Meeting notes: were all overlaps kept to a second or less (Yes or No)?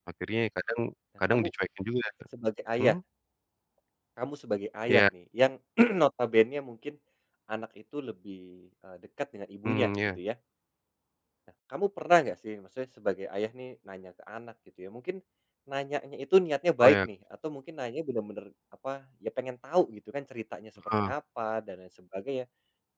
Yes